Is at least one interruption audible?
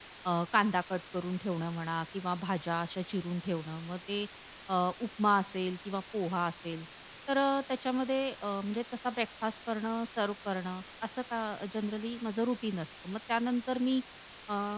No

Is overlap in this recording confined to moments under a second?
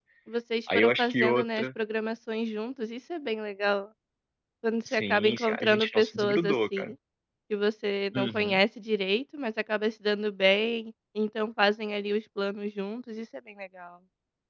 No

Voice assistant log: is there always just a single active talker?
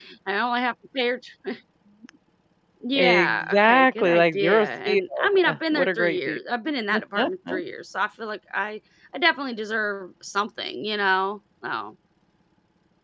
No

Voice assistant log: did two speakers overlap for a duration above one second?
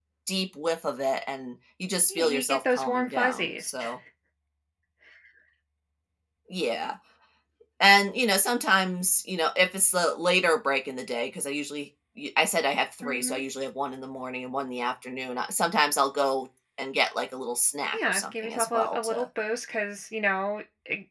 Yes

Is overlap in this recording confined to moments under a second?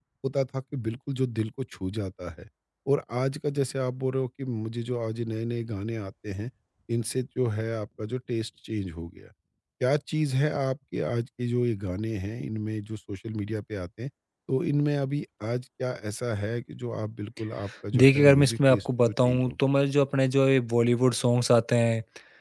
No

